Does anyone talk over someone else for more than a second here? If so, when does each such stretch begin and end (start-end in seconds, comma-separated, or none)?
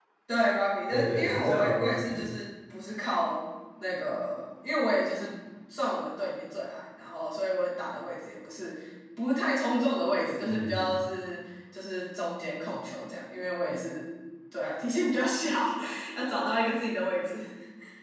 0.9-2.3